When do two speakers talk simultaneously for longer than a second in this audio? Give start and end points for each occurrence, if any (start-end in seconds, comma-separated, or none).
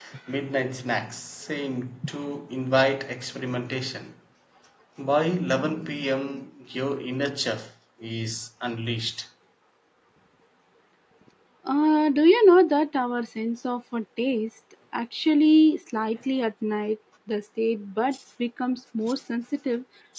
none